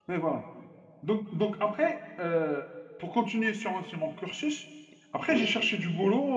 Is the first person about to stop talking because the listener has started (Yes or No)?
No